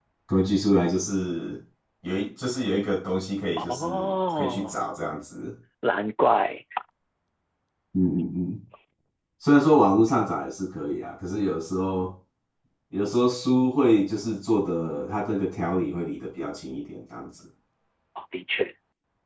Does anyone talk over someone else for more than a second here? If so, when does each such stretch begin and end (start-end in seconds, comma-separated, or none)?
3.6-4.8